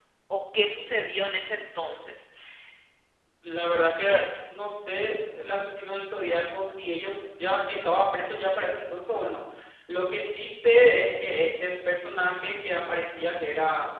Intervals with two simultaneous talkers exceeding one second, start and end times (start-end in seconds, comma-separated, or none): none